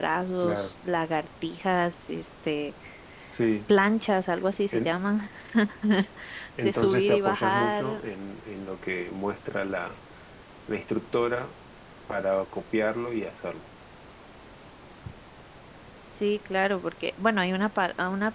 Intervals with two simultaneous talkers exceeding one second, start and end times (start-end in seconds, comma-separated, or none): 6.6-8.1